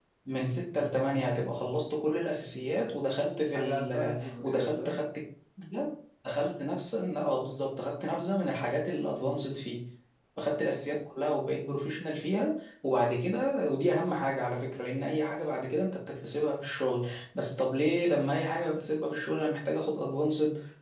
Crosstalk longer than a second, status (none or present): present